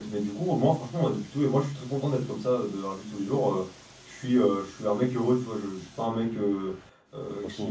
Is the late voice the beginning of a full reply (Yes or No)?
No